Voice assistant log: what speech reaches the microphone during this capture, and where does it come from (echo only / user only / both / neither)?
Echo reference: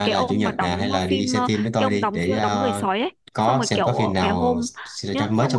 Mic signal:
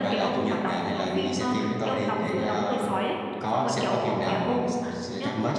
echo only